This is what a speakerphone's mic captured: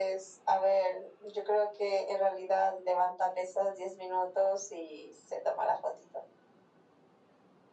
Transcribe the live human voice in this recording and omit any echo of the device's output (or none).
none